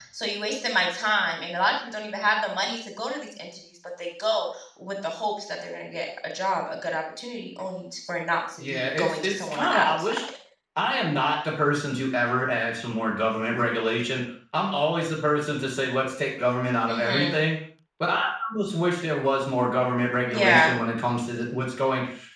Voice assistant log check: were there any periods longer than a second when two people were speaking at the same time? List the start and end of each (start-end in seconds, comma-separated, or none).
8.6-10.3